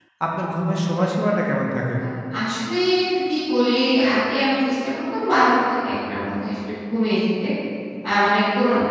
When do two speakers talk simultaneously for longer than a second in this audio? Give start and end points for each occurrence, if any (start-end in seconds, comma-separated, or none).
none